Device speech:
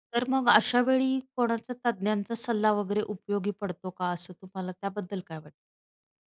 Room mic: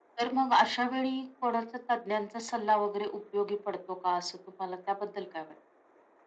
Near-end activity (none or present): none